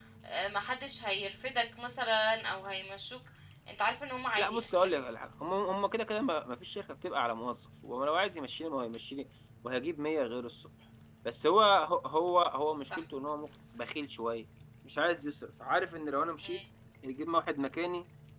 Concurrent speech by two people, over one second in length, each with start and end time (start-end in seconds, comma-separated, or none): none